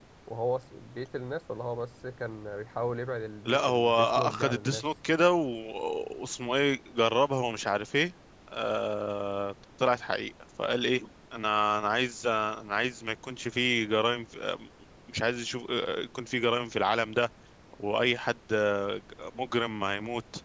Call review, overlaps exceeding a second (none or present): present